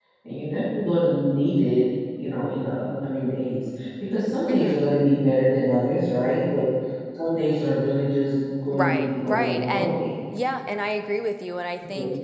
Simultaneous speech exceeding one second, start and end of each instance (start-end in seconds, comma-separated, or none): 8.7-10.0